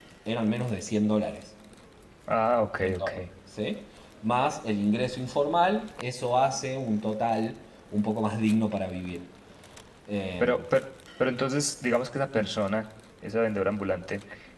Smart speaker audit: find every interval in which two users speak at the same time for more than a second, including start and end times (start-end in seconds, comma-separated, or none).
none